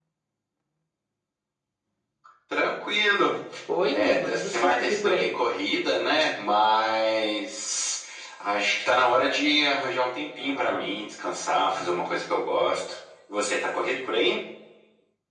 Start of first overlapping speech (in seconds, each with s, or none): 3.9 s